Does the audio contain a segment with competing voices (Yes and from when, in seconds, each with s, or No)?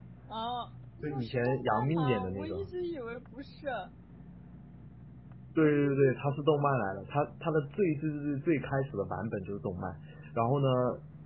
Yes, from 1.0 s